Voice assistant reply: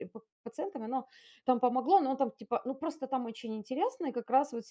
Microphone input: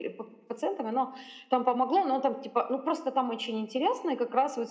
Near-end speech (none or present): none